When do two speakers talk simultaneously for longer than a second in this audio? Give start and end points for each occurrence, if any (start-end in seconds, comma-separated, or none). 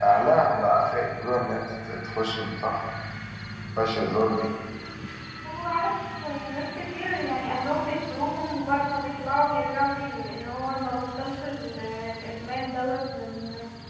none